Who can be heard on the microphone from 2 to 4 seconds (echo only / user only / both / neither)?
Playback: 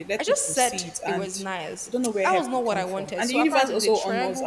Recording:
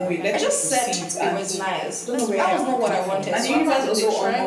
both